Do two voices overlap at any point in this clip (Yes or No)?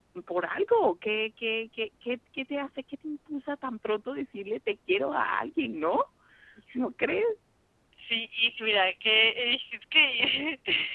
No